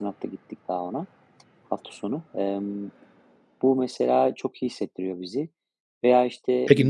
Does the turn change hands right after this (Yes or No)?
Yes